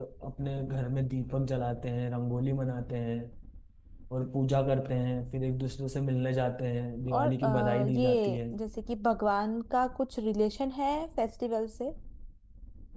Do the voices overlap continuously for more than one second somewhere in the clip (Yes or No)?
Yes